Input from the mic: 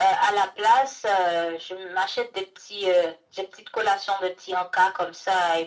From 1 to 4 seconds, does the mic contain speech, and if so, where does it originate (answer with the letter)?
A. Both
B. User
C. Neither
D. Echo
D